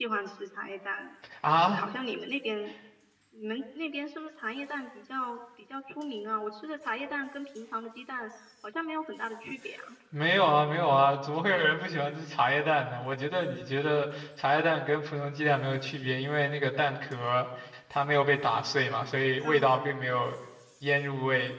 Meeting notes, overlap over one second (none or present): none